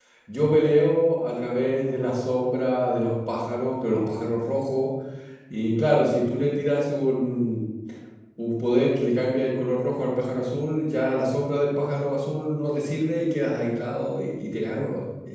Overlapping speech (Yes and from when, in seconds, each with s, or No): No